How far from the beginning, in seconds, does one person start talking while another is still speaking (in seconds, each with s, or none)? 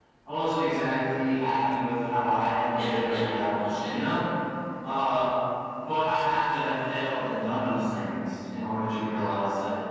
2.7 s